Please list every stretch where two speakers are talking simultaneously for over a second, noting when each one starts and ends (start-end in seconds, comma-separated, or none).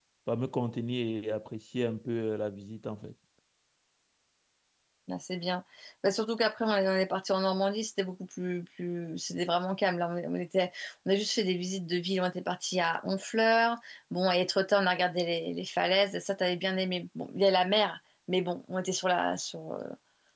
none